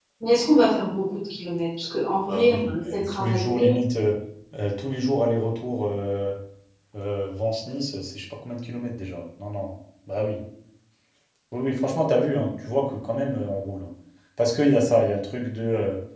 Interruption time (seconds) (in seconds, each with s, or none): 2.3 s